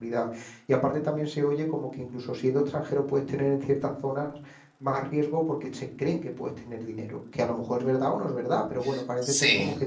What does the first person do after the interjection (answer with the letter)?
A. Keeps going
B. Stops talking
A